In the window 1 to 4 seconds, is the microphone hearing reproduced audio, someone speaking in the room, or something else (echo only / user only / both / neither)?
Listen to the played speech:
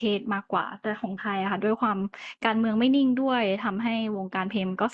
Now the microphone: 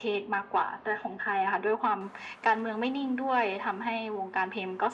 echo only